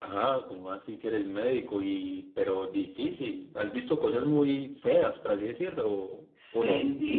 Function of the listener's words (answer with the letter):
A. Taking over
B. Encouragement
A